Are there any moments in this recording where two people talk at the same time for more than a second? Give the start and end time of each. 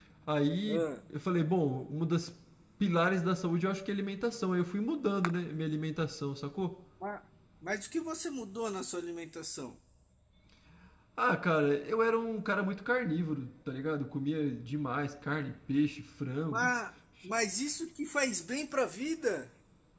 none

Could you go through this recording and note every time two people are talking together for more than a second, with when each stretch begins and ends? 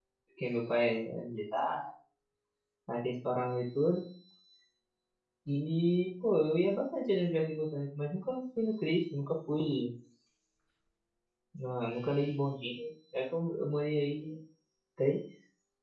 none

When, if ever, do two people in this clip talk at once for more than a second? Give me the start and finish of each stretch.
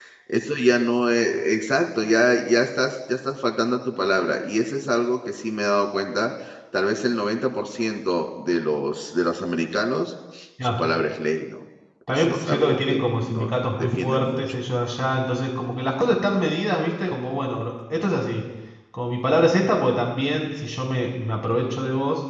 12.1-14.4

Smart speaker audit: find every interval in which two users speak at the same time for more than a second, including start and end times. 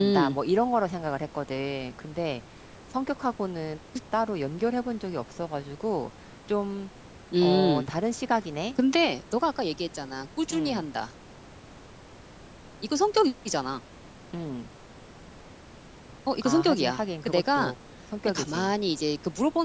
16.4-17.7

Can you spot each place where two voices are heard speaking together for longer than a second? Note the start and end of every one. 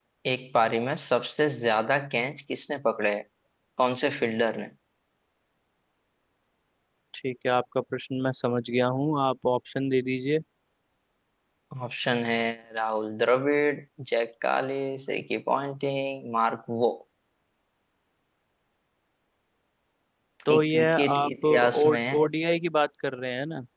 20.5-22.3

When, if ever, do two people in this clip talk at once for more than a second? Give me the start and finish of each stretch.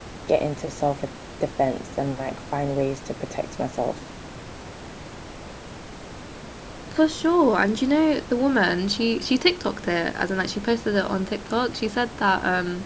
none

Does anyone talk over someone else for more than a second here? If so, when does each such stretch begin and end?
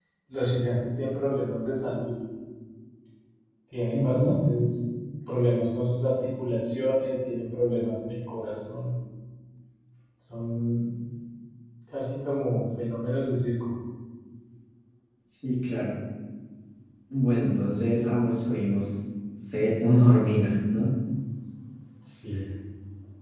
none

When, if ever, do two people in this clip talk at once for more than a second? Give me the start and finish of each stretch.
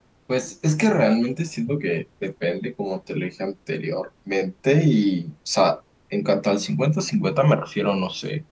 none

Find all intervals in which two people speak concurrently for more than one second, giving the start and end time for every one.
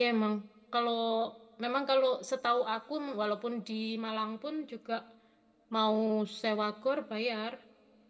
none

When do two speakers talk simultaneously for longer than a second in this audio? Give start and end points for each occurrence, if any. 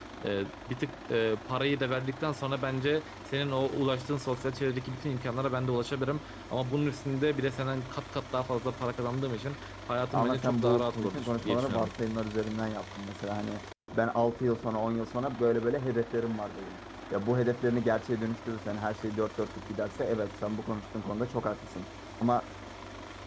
10.1-11.9

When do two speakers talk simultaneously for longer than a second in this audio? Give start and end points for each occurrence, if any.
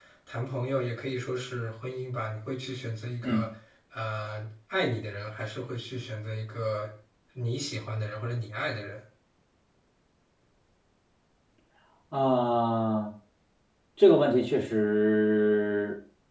none

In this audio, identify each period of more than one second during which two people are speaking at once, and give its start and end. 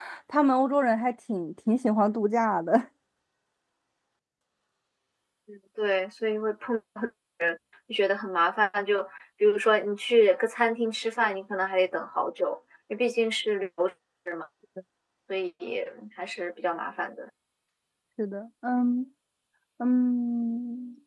none

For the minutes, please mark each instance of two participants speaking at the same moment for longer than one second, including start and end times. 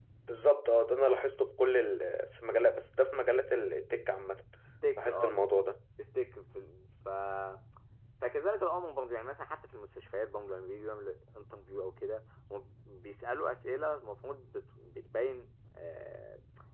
none

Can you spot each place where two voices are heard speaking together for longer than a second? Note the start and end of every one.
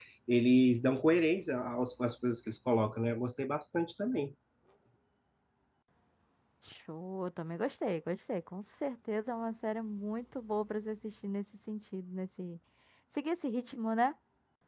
none

